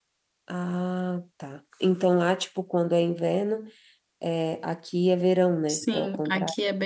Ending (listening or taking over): taking over